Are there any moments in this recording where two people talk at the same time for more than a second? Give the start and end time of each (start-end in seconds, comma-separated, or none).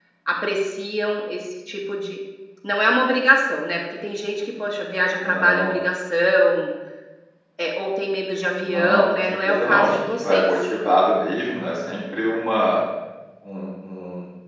8.6-10.7